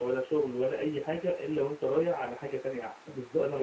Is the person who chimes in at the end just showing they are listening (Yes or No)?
No